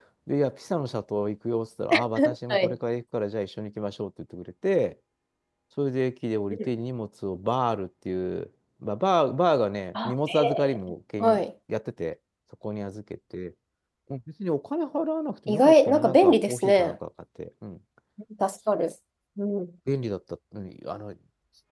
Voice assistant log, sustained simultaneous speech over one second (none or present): present